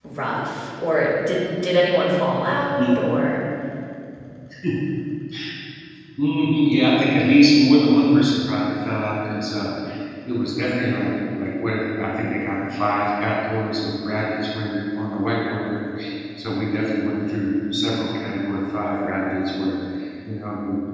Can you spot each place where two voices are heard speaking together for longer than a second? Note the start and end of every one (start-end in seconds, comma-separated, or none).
none